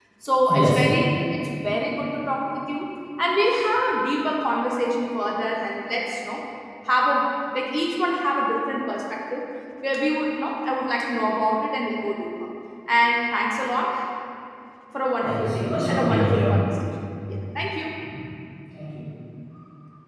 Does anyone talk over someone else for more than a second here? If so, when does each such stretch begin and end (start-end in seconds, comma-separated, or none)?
15.2-16.5